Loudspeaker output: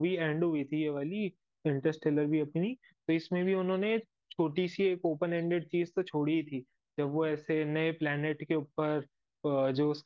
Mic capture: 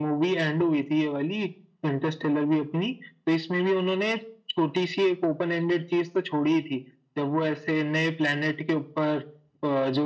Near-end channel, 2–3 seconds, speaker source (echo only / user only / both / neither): echo only